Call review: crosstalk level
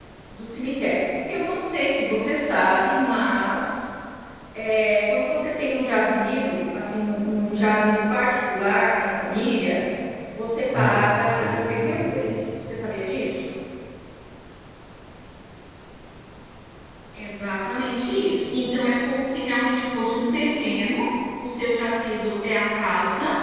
present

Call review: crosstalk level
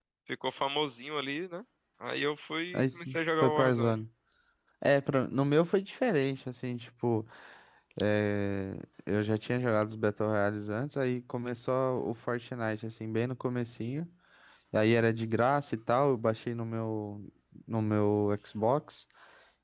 present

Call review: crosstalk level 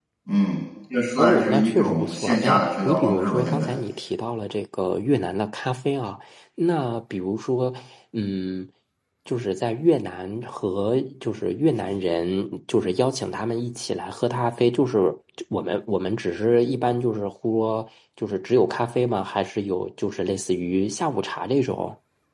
present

